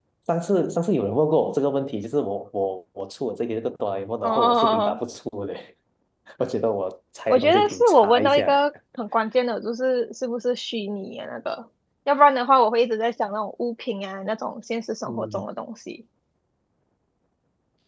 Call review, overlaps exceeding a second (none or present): present